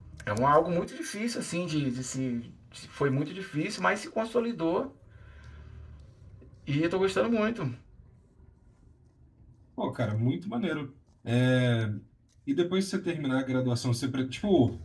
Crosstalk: none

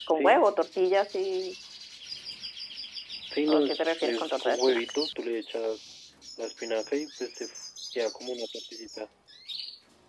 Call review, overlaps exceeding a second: present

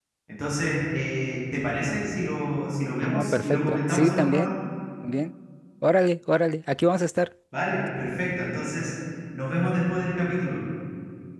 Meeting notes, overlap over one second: present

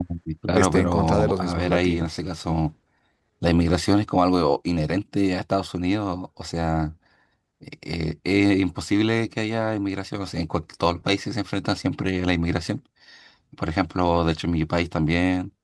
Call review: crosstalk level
present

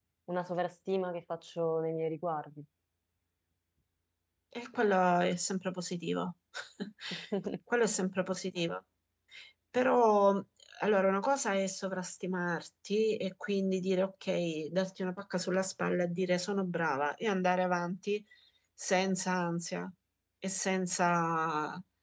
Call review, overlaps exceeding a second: none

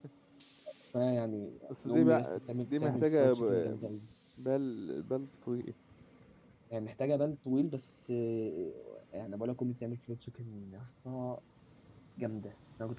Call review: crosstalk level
present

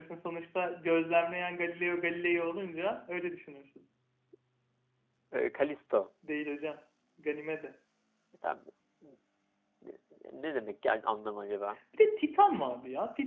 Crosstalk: none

